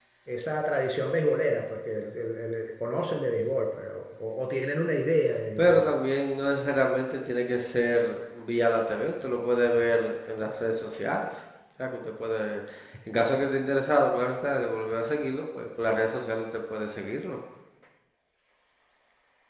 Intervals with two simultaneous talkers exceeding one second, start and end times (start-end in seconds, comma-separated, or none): none